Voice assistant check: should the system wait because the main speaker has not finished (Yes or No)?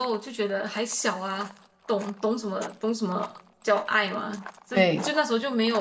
Yes